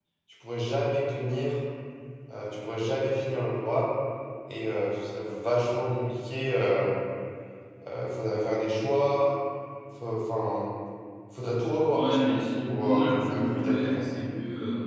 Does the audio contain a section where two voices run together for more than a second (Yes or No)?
Yes